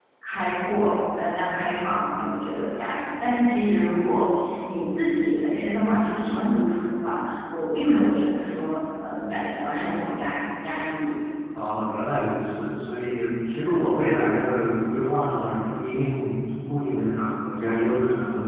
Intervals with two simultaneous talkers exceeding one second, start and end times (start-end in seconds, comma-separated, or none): none